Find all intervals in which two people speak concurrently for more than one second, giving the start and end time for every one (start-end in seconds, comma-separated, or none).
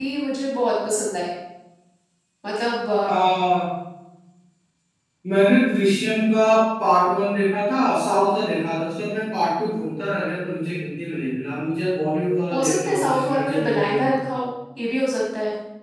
12.5-14.2